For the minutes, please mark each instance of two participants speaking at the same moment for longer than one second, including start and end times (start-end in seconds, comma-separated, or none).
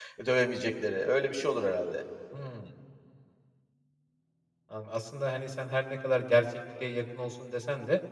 none